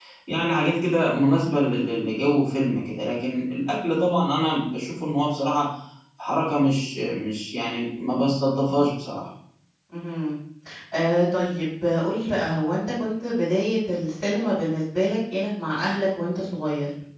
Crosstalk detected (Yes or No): No